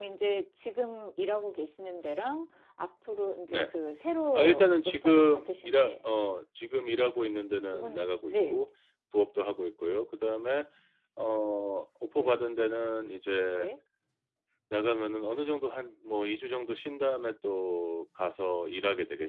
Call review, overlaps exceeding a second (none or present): present